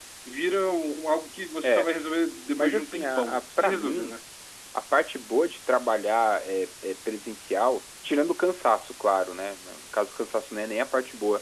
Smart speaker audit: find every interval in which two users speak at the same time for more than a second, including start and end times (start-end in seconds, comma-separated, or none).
2.6-4.1